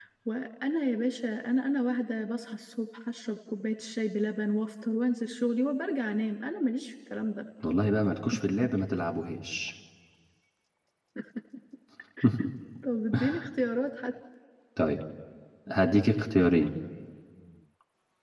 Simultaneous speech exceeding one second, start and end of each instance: none

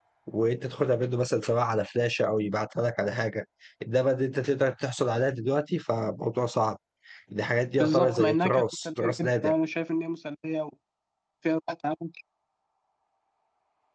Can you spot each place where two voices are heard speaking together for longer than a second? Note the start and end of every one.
7.8-9.5

